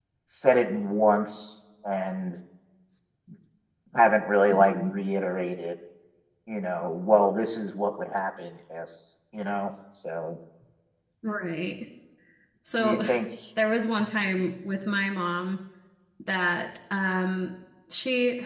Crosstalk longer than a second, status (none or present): none